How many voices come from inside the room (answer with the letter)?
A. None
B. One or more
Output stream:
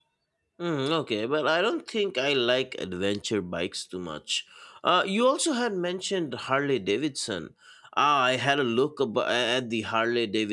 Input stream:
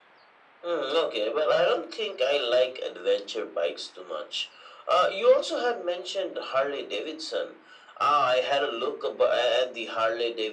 A